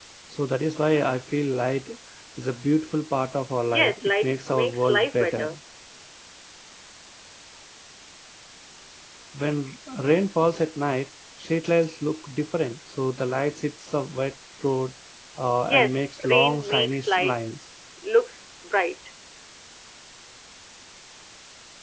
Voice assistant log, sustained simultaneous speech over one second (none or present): present